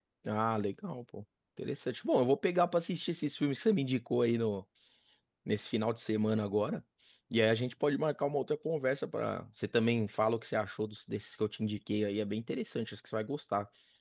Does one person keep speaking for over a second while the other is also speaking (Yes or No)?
No